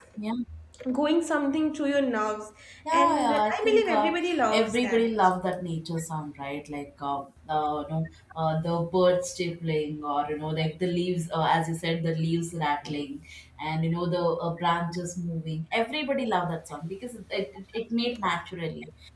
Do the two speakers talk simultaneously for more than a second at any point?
Yes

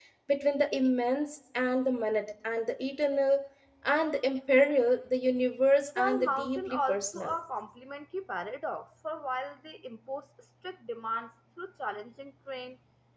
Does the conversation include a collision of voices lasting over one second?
Yes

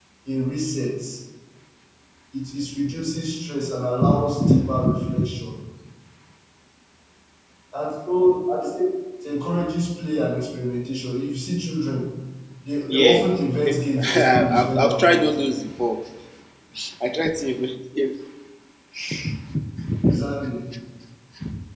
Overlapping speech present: Yes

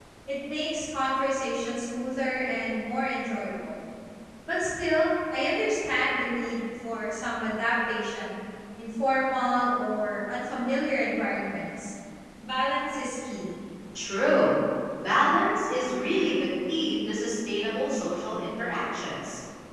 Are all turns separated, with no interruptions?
Yes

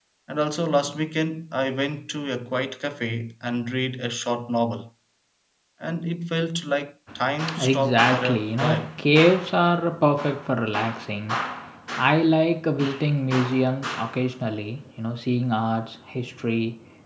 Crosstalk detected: Yes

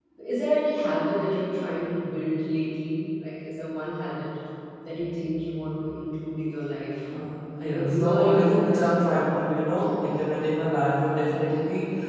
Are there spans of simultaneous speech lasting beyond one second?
Yes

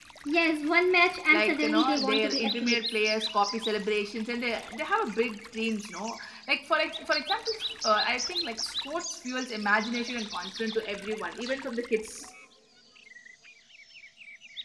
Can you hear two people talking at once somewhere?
Yes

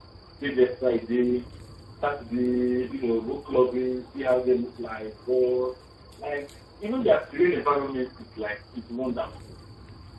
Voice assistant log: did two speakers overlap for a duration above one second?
No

